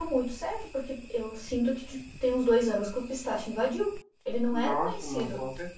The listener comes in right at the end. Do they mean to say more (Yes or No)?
Yes